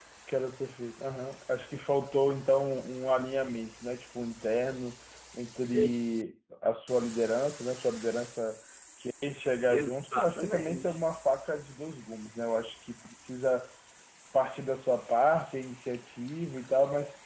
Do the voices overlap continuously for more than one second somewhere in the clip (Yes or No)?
Yes